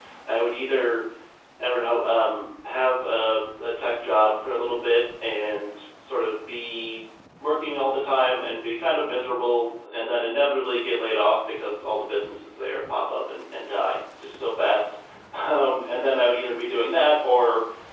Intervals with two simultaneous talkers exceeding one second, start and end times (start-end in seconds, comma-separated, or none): none